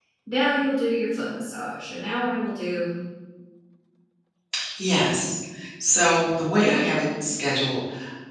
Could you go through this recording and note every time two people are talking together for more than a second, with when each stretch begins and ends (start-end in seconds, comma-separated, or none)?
none